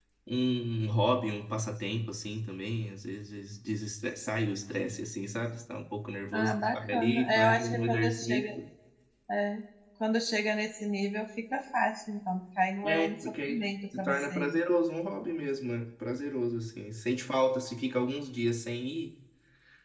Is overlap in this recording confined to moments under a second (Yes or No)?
No